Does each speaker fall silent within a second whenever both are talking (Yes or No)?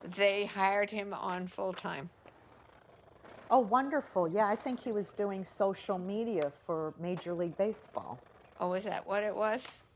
Yes